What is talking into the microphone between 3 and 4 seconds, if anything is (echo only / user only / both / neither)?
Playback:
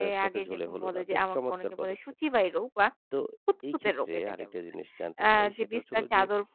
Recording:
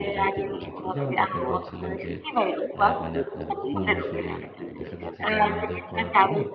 both